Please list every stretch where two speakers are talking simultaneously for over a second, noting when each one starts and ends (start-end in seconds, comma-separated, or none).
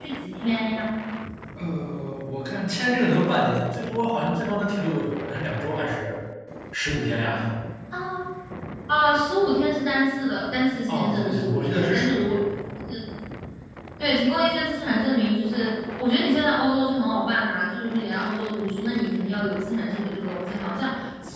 10.9-12.2